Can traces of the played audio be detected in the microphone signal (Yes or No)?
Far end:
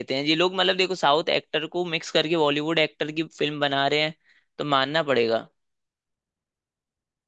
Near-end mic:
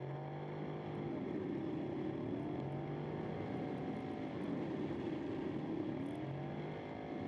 No